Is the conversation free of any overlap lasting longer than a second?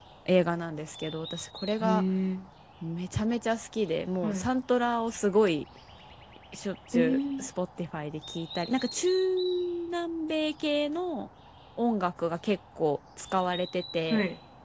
Yes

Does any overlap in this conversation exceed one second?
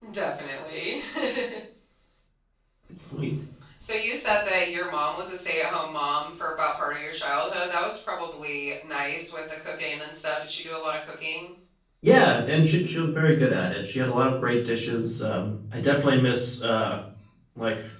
No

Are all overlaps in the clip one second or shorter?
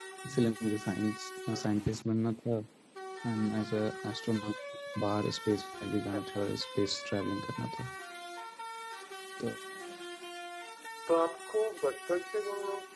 Yes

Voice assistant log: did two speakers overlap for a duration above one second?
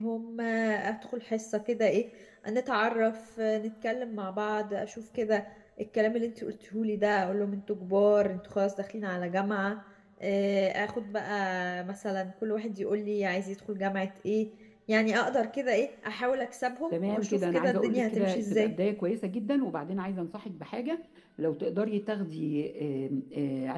Yes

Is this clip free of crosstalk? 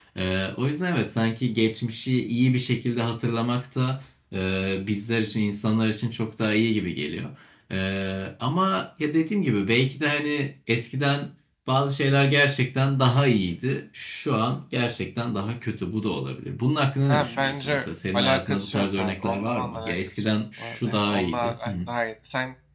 No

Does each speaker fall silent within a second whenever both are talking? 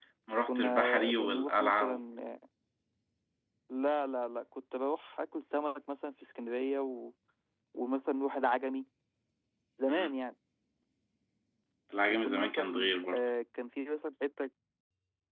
No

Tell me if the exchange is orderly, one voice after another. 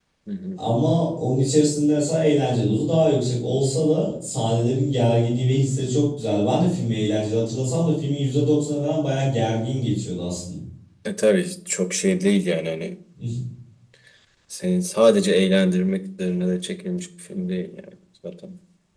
Yes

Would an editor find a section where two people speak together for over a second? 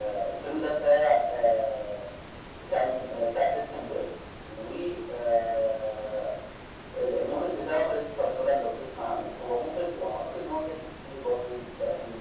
No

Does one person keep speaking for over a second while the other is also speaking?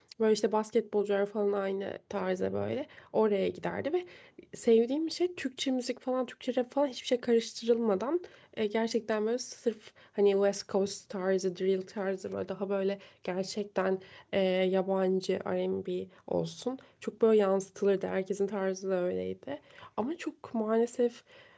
No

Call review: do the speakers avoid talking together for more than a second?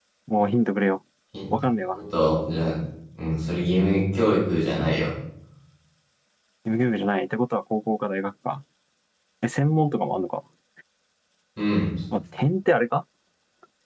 Yes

